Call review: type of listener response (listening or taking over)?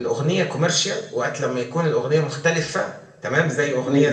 listening